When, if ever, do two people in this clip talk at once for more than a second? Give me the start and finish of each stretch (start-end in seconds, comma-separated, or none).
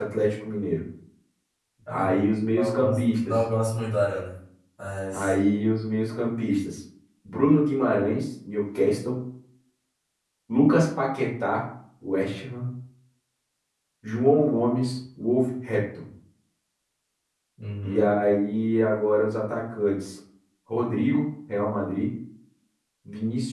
1.9-3.4